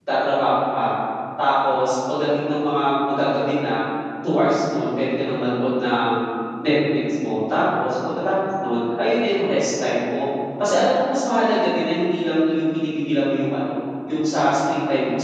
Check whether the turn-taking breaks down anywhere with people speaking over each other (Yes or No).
No